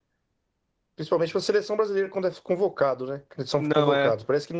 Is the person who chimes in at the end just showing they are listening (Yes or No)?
Yes